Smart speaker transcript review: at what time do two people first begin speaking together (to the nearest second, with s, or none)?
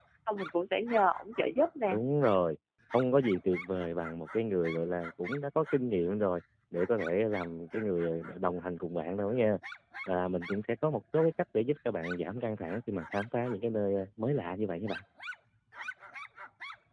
none